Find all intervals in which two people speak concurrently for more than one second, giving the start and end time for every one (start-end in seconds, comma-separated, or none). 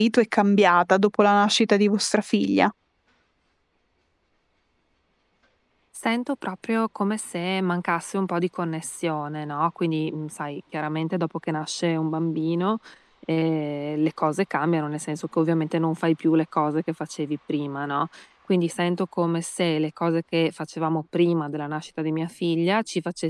none